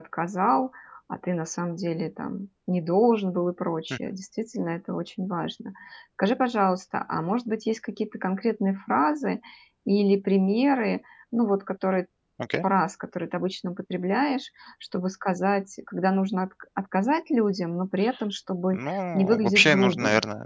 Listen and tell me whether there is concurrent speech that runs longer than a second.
Yes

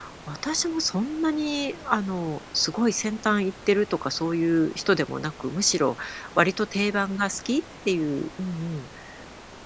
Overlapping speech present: No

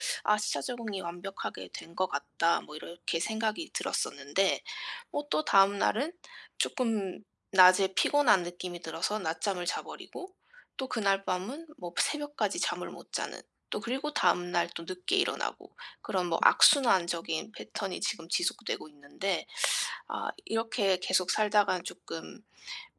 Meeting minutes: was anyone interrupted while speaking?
No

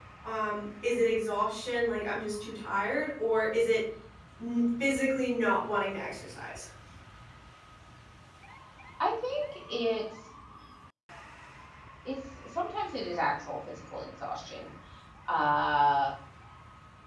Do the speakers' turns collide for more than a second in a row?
No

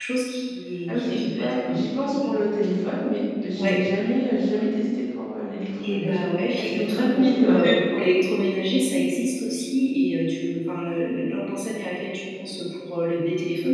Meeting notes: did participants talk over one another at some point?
Yes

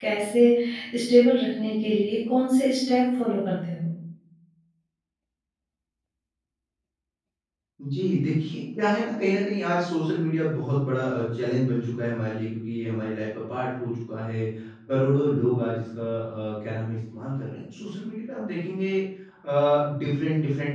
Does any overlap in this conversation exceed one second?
No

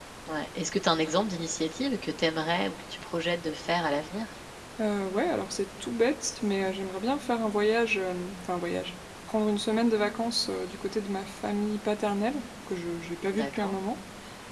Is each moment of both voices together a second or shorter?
Yes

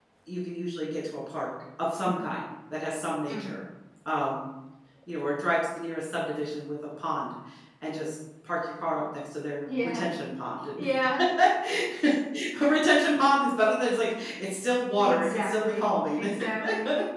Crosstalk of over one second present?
Yes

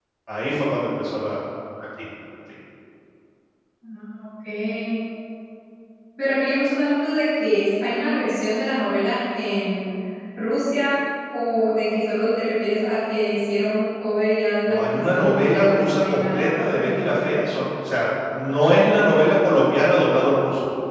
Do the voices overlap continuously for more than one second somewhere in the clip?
Yes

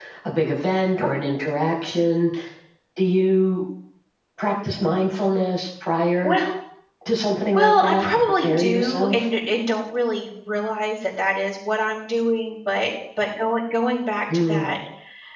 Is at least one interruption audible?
Yes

